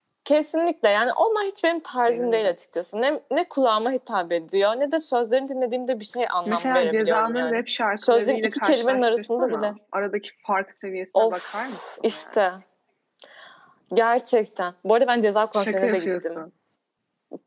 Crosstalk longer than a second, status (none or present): present